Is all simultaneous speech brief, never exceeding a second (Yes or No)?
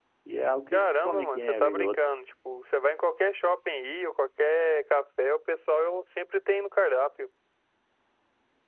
No